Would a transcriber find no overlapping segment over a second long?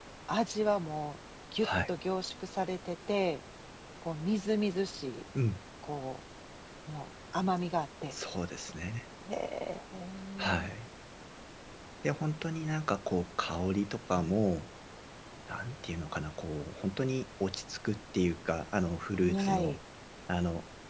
Yes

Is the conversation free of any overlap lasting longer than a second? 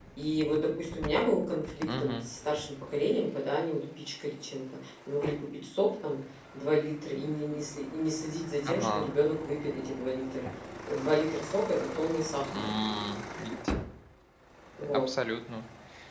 Yes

